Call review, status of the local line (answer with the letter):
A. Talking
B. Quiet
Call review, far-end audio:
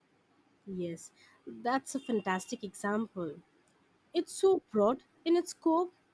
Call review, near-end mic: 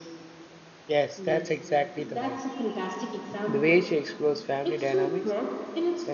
A